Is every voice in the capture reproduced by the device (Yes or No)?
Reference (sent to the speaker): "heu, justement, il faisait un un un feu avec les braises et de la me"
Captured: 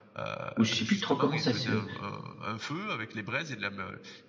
No